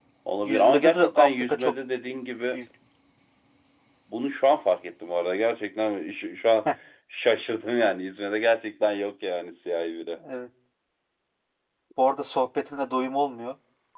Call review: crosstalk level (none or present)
present